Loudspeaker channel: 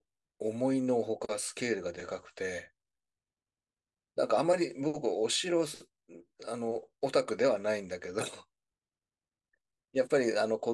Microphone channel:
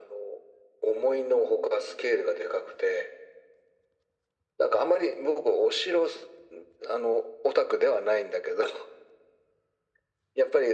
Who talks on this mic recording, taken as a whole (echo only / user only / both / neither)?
echo only